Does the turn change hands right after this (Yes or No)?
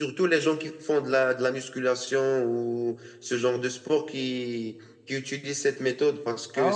No